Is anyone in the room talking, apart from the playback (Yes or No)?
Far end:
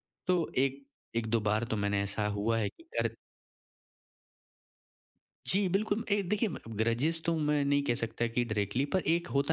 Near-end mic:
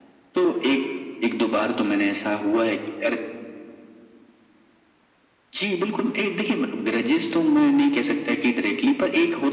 No